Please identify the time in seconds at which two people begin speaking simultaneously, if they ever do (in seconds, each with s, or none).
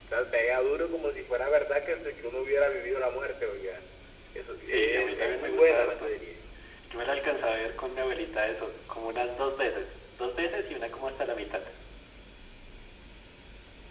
4.7 s